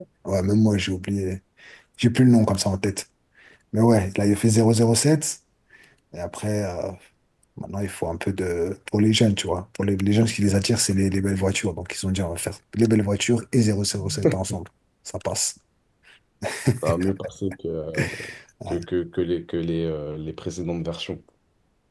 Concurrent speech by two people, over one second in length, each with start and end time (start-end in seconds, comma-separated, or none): none